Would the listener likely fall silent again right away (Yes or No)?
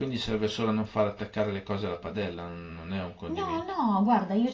No